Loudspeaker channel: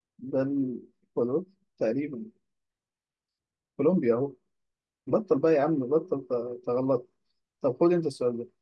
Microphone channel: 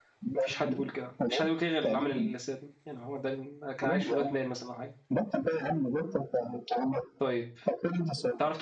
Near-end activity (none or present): present